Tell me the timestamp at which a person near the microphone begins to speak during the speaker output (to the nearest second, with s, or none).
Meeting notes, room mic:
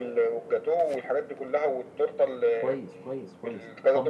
3 s